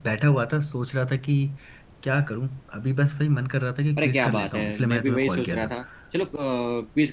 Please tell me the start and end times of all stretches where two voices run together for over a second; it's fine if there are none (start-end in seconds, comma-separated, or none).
4.0-5.7